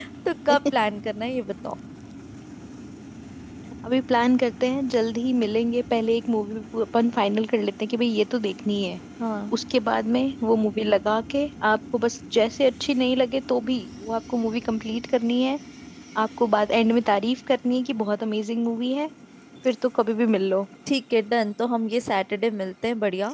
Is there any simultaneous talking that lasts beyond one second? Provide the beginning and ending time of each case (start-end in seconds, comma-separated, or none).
none